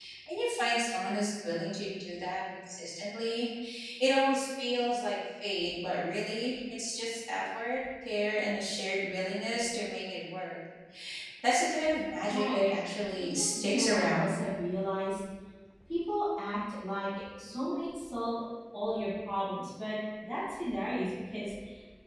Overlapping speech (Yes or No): Yes